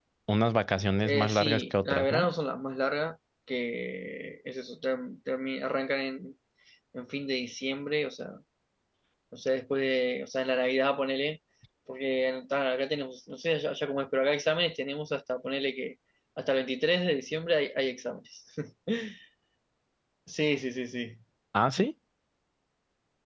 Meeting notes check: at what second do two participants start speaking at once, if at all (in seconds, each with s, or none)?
1.0 s